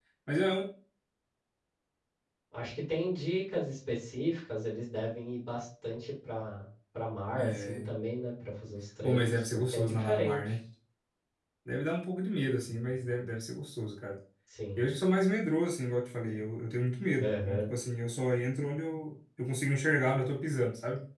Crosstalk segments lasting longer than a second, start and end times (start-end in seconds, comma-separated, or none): 9.0-10.6